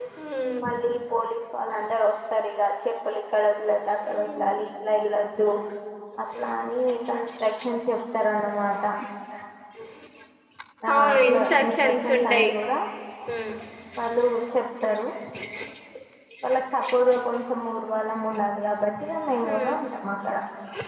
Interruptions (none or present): present